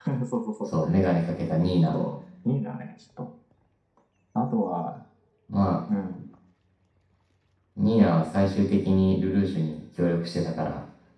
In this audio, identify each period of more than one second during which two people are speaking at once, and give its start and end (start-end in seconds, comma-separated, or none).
none